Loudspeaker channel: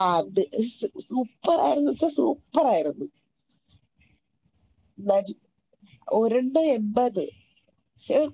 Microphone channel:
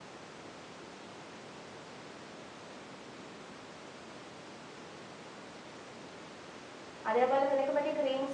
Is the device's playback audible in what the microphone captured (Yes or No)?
No